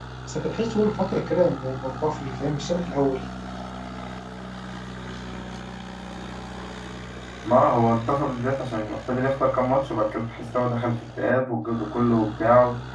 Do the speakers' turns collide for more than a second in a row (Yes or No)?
No